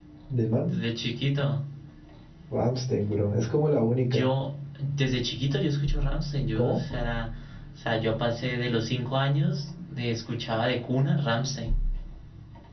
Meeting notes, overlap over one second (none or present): none